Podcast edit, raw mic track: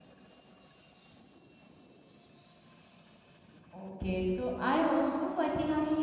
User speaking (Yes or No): Yes